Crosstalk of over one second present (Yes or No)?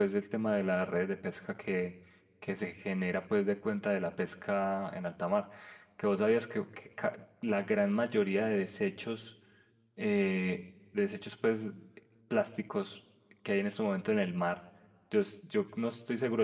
No